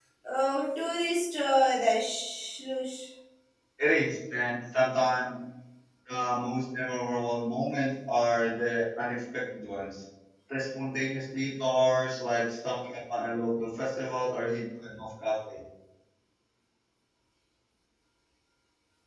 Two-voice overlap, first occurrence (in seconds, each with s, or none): none